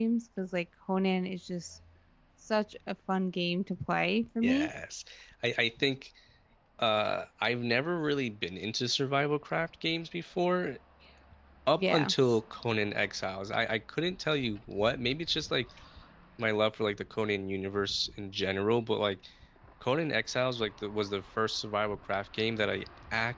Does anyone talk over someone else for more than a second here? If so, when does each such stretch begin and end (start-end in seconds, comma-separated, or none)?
none